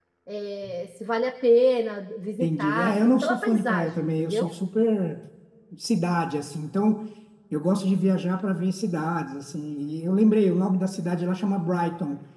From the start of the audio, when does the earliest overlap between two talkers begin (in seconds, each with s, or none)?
2.4 s